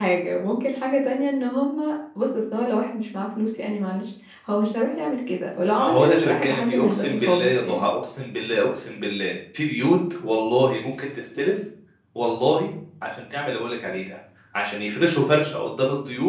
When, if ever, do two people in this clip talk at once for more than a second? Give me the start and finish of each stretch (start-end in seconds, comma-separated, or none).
5.8-7.8